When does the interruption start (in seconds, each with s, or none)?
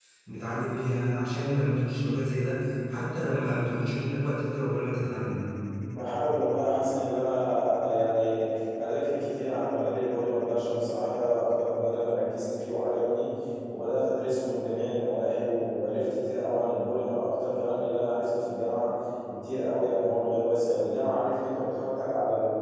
none